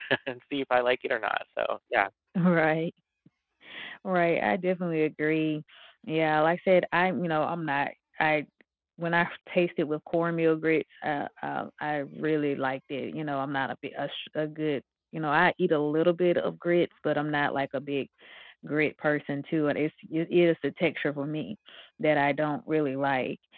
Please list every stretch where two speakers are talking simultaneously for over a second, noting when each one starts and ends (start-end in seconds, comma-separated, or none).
none